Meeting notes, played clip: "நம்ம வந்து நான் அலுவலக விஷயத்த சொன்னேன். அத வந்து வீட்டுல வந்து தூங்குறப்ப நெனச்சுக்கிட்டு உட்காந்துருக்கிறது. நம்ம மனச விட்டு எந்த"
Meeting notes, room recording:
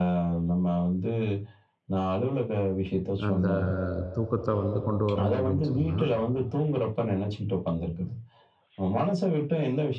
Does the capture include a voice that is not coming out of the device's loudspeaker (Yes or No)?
Yes